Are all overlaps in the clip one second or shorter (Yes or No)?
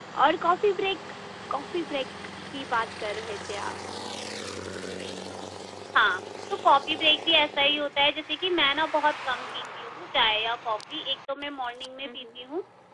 Yes